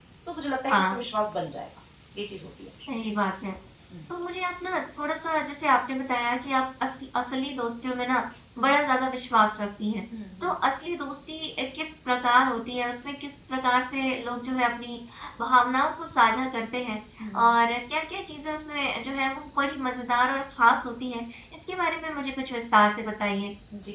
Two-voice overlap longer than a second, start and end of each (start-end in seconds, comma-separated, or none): none